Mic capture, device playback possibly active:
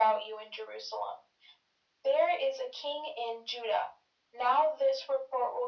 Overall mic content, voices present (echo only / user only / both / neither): echo only